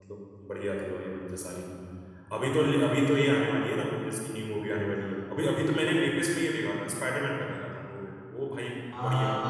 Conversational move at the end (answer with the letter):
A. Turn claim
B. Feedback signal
A